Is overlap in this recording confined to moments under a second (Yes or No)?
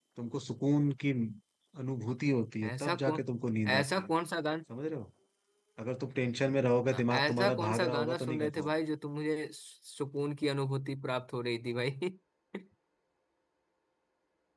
No